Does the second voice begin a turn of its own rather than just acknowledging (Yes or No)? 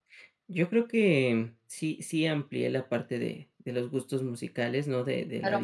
Yes